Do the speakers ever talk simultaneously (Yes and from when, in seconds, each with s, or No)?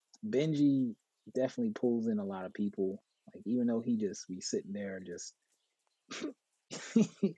No